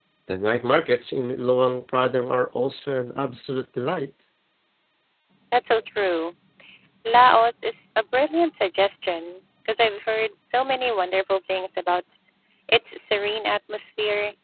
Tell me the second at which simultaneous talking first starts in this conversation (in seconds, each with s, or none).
none